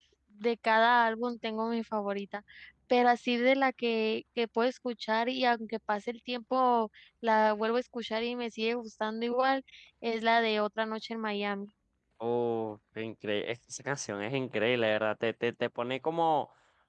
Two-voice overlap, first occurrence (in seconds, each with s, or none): none